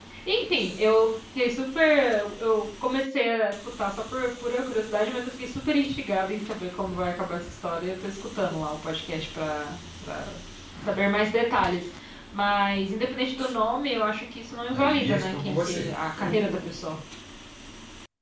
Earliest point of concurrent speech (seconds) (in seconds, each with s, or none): 14.7 s